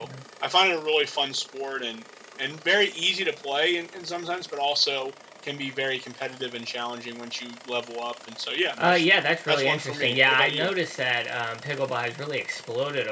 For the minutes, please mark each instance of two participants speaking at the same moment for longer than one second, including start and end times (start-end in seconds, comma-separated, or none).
9.5-10.7